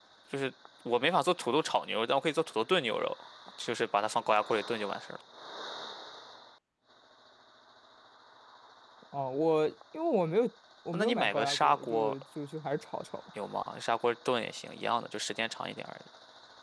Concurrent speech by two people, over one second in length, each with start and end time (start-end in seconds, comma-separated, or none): 10.9-12.1